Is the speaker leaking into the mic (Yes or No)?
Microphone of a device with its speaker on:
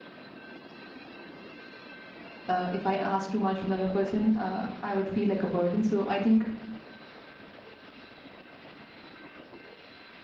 No